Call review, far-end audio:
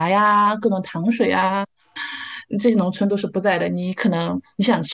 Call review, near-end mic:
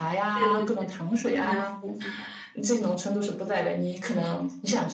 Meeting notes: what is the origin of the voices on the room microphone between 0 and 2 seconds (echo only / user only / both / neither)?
both